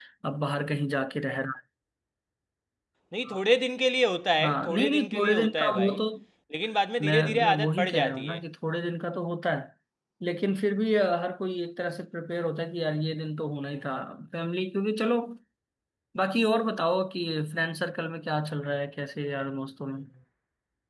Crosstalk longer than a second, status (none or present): present